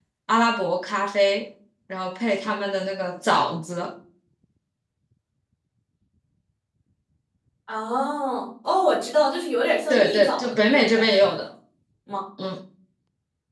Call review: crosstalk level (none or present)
present